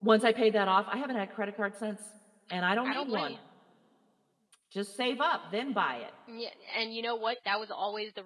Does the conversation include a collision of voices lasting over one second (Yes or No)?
No